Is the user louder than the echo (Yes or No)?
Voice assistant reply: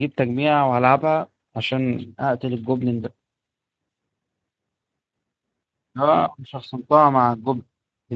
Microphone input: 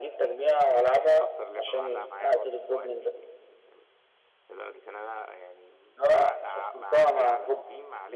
No